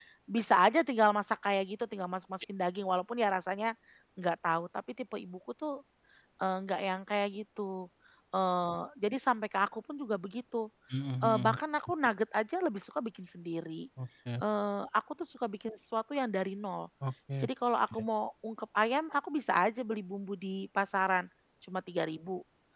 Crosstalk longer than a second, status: none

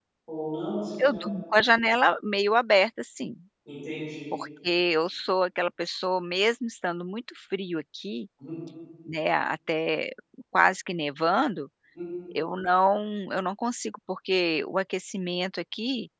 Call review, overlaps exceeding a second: none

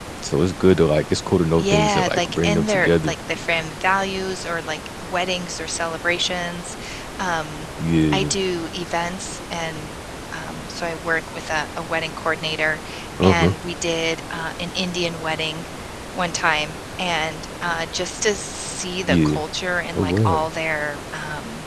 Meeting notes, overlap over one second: present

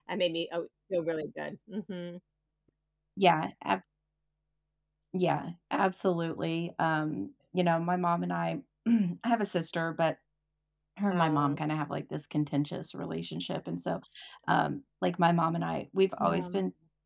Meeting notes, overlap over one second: none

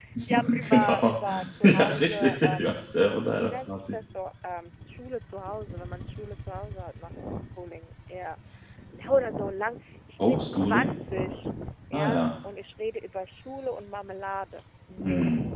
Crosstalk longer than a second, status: present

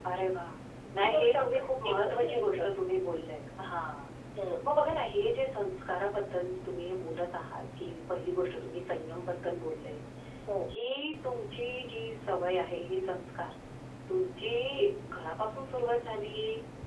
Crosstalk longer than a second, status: present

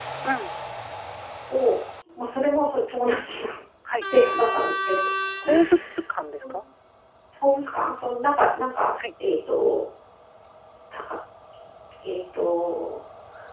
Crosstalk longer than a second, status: none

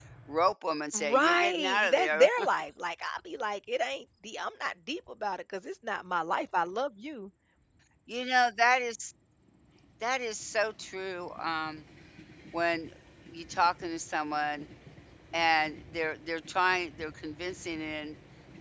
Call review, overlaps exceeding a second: present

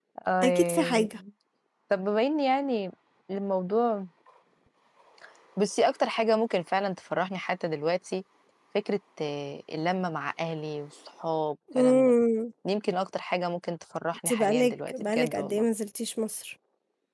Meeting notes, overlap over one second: present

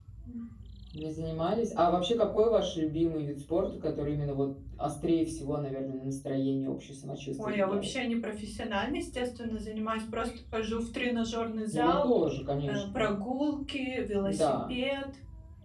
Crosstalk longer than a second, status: none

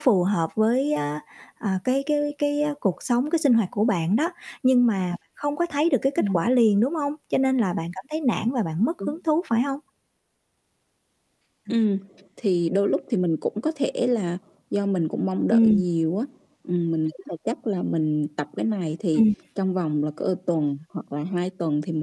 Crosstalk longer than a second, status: none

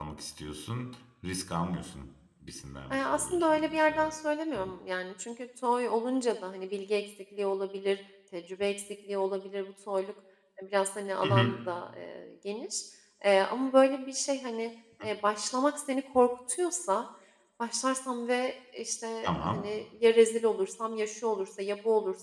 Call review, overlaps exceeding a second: present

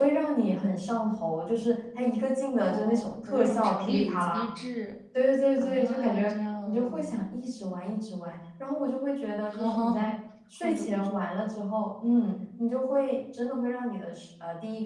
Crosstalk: present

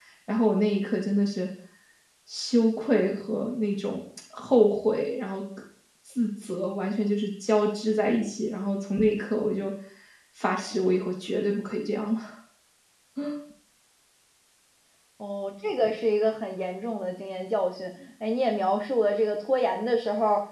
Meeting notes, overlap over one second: none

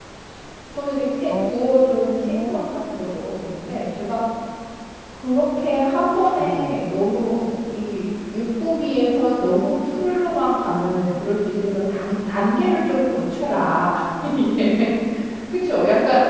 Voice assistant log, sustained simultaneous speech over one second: none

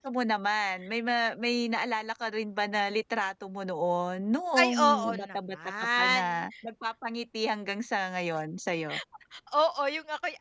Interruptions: present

